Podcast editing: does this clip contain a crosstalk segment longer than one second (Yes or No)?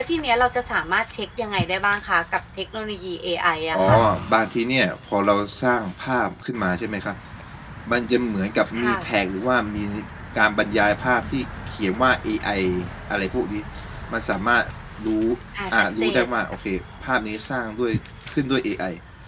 No